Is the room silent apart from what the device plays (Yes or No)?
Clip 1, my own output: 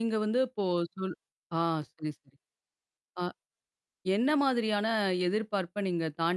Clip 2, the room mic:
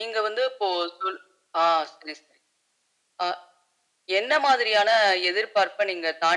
Yes